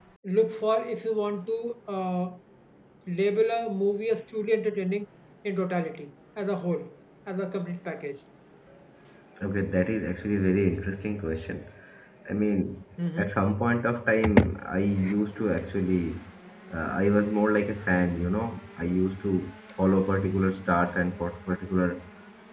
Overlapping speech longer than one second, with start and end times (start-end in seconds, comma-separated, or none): none